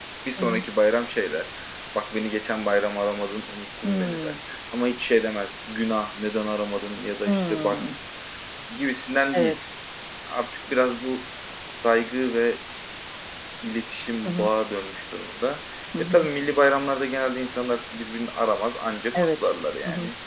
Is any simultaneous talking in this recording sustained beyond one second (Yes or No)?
No